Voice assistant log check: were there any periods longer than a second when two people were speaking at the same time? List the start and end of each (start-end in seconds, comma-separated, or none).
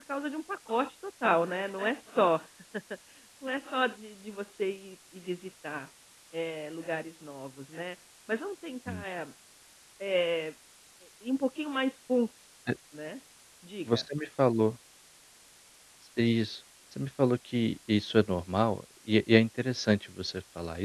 none